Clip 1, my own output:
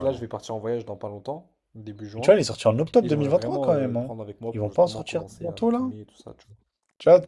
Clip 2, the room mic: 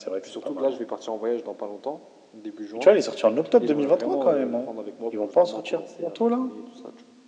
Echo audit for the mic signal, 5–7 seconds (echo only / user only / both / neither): echo only